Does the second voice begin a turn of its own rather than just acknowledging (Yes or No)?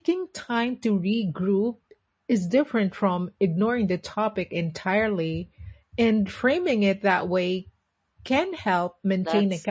Yes